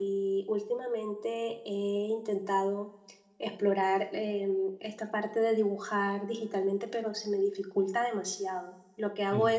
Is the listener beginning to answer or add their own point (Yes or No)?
No